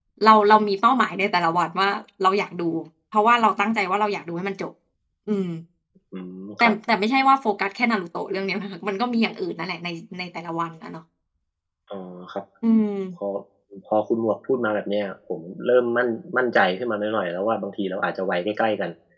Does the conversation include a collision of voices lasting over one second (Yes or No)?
No